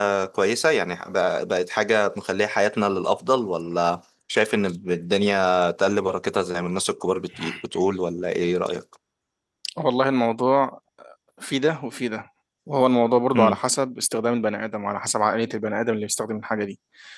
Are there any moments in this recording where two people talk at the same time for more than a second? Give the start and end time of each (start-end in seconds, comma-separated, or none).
none